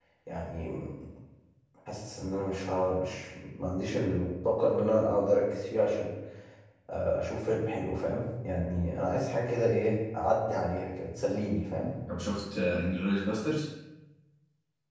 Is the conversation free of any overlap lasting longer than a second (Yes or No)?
Yes